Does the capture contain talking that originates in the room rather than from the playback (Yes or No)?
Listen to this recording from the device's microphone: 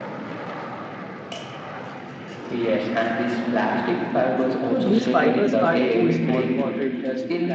Yes